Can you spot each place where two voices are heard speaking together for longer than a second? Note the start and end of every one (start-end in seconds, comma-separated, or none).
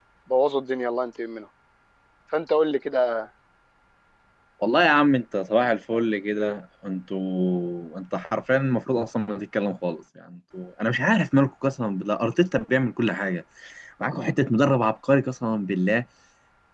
none